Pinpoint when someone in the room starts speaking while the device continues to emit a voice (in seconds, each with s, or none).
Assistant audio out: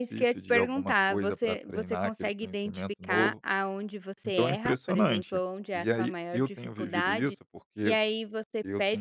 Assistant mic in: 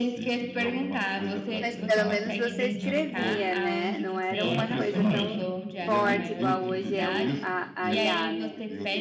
1.6 s